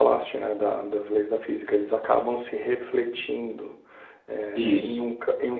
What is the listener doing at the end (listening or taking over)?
listening